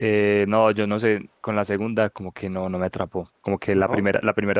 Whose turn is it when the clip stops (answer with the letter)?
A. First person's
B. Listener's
A